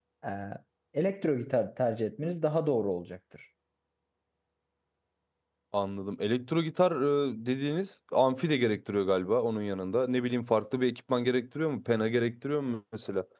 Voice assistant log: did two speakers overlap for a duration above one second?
No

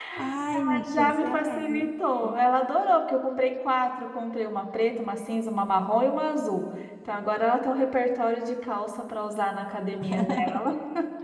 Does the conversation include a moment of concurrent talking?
Yes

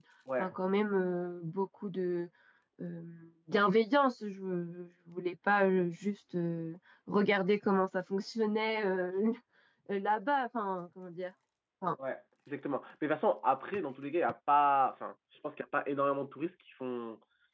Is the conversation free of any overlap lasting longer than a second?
Yes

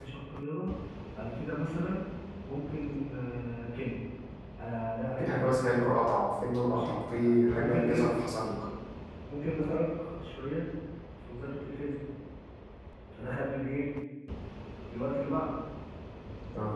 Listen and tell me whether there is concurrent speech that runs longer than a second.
Yes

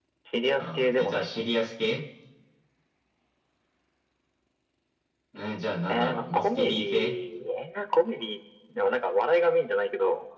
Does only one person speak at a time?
No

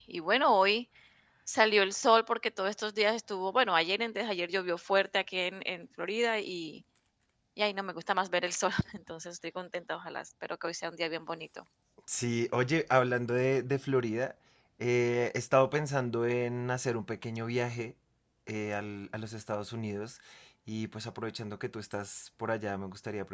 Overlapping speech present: No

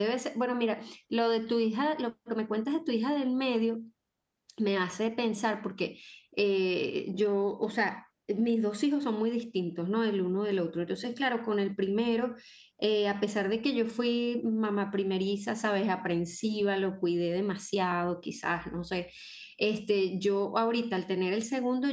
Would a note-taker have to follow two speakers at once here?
No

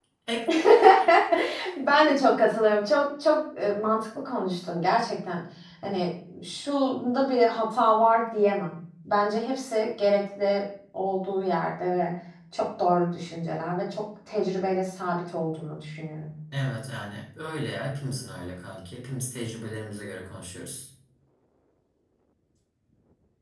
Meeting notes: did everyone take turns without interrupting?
Yes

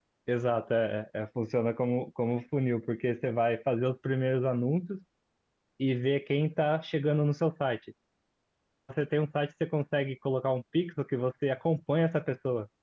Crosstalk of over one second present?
No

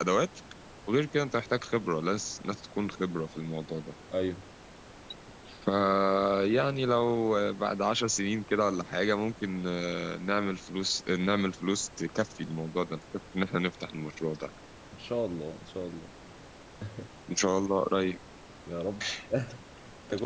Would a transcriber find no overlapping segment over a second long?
Yes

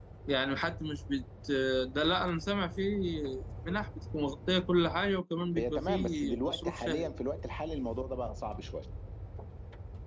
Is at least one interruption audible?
Yes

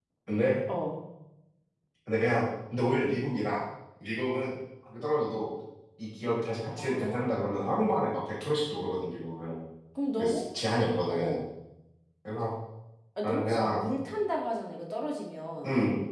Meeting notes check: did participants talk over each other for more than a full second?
Yes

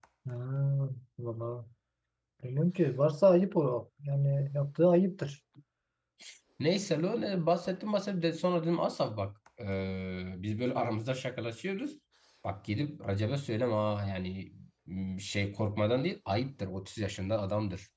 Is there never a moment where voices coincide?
Yes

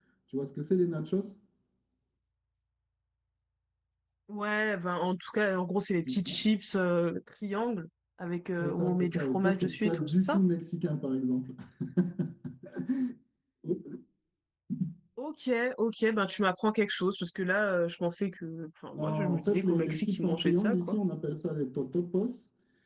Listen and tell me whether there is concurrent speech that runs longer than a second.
Yes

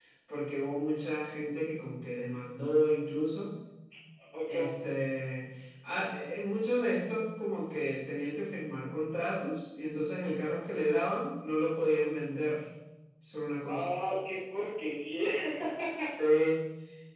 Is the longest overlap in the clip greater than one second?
No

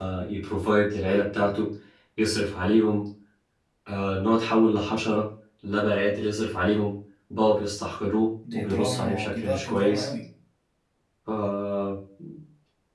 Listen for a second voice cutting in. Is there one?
Yes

